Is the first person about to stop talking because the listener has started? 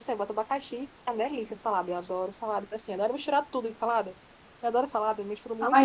Yes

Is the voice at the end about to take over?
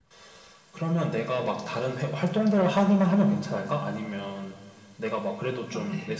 No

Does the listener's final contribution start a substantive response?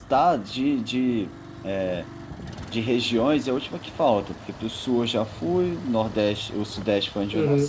No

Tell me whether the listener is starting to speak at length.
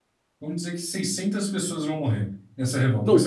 Yes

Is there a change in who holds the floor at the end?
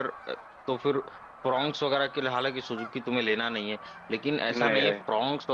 No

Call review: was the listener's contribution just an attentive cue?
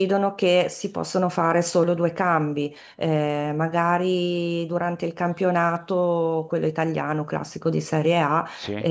Yes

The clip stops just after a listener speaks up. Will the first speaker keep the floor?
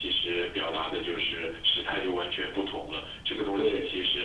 Yes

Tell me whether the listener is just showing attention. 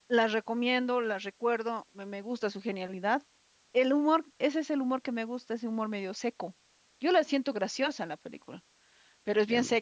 Yes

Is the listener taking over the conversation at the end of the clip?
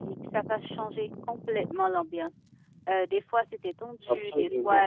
No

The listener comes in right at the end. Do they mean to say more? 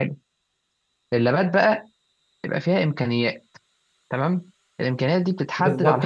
Yes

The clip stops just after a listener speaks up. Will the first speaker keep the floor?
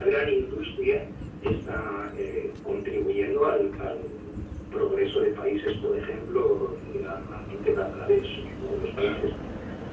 Yes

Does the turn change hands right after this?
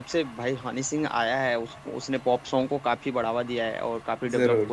No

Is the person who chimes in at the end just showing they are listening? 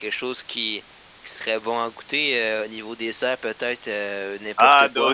No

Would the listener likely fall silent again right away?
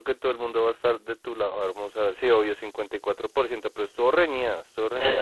No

